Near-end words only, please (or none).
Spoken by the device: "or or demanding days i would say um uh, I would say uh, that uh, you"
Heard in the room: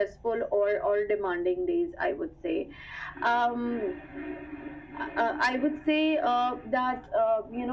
none